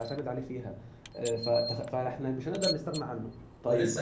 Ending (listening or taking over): taking over